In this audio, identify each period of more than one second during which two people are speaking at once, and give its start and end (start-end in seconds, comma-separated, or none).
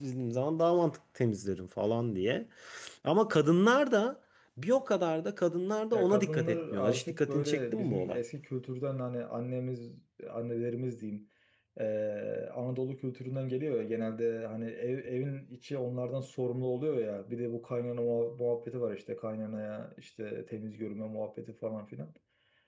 5.9-8.2